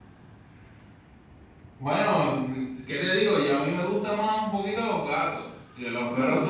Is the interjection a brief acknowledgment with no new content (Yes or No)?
Yes